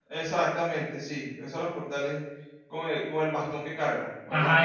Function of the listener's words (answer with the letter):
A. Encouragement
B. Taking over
B